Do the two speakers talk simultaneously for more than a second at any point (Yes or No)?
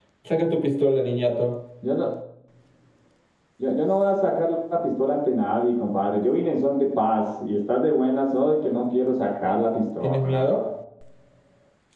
No